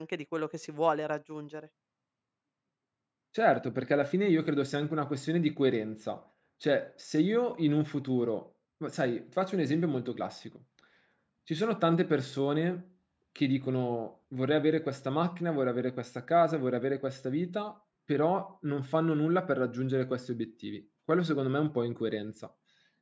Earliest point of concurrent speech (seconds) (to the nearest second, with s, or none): none